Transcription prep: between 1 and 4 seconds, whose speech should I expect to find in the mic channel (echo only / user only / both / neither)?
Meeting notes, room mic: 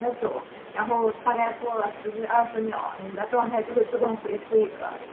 echo only